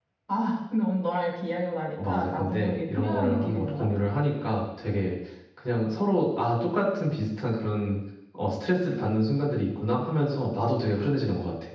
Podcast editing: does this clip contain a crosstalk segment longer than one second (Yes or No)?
Yes